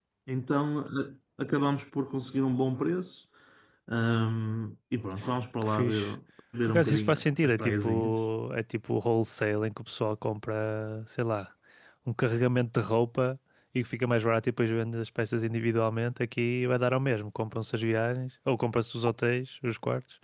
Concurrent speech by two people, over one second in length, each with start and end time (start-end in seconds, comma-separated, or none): 6.7-8.2